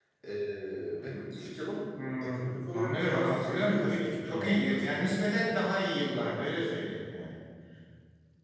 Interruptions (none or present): present